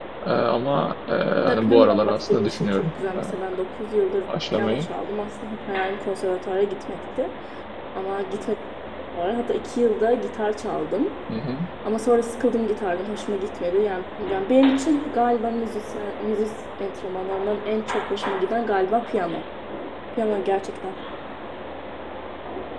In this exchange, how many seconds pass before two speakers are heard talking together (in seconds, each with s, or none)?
1.4 s